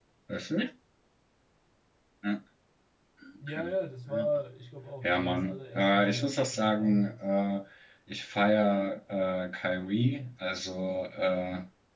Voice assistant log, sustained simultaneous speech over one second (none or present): present